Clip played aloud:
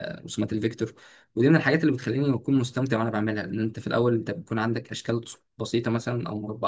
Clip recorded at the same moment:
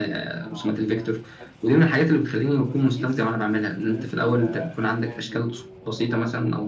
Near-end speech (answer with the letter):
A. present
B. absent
A